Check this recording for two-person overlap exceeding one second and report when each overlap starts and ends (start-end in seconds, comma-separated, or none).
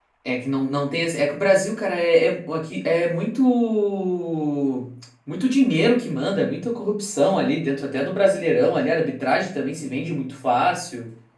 none